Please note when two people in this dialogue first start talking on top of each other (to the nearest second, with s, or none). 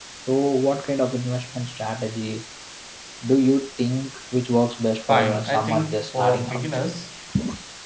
5 s